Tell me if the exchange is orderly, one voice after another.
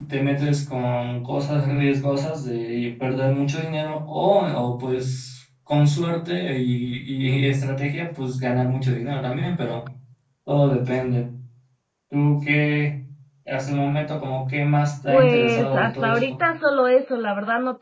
No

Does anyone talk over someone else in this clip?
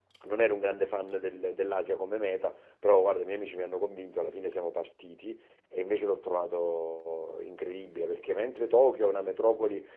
No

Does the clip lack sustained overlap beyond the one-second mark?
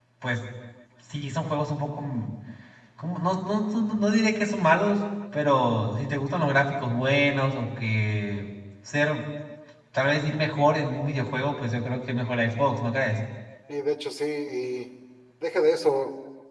Yes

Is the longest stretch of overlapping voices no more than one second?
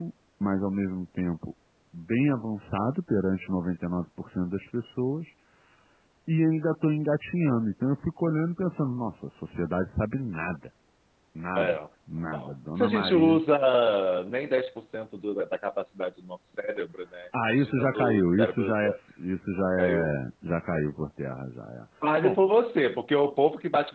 No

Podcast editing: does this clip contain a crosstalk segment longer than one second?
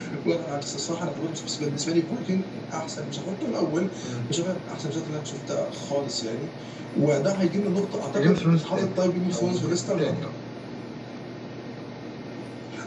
Yes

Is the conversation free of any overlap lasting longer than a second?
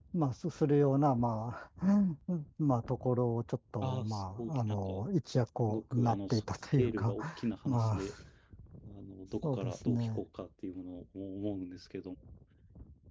No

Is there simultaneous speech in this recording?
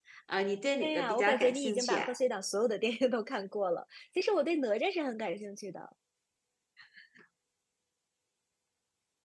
Yes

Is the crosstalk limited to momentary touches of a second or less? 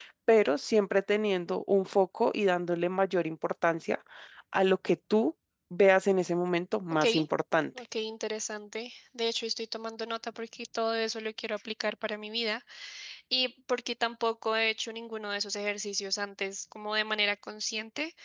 Yes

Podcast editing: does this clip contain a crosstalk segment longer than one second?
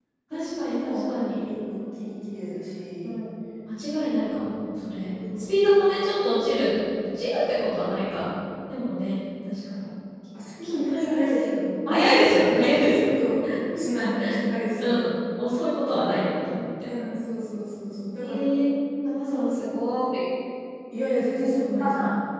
Yes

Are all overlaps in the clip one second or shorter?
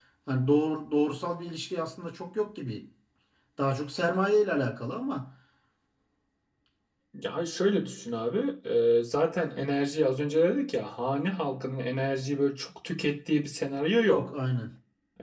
Yes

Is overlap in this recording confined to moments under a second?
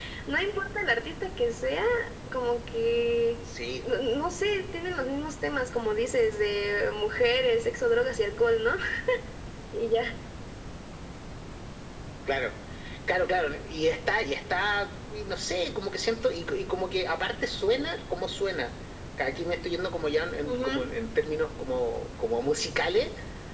Yes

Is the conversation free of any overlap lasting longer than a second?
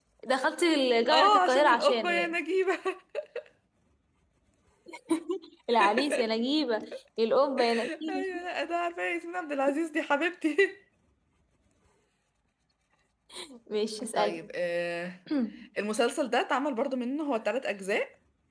No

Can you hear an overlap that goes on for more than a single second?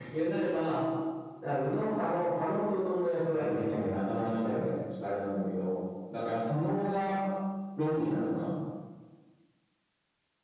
Yes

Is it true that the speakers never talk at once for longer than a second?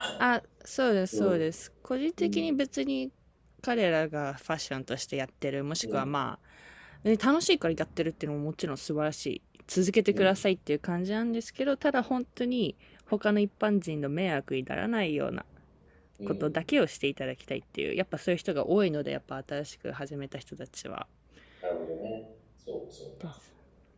Yes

